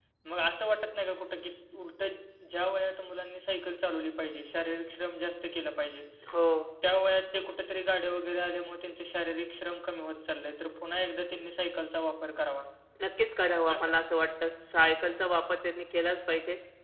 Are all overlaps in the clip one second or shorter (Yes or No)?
Yes